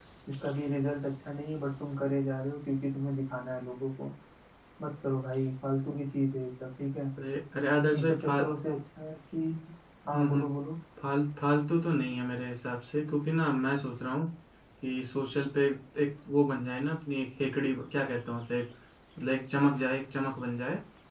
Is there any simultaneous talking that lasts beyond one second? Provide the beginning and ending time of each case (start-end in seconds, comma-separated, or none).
none